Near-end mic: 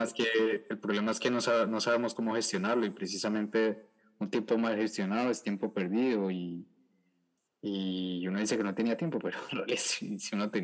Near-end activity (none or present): none